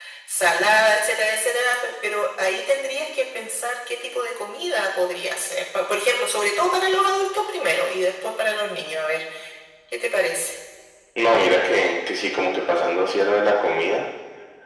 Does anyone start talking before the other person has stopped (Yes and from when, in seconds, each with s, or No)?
No